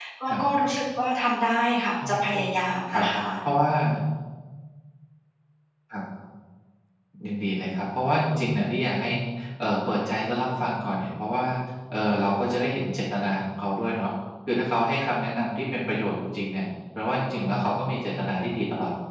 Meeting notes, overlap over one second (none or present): none